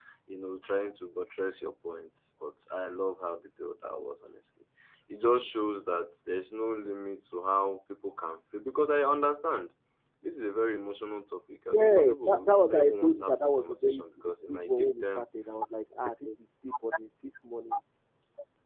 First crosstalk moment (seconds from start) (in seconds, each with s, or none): 11.7 s